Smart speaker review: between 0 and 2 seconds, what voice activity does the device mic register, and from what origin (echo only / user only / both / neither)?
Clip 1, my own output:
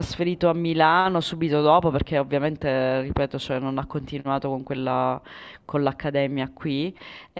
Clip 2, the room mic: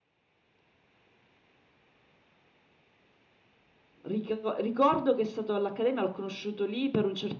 neither